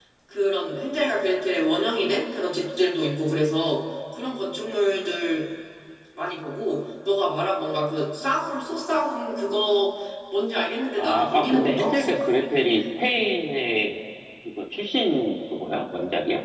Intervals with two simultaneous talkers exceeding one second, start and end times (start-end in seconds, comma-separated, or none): 11.0-12.2